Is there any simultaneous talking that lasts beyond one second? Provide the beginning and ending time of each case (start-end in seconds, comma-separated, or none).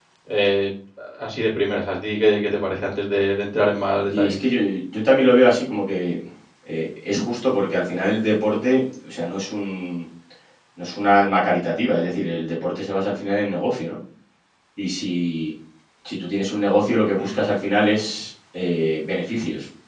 none